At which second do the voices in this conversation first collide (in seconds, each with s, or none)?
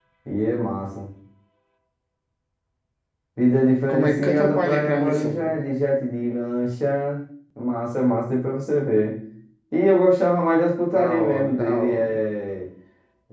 3.9 s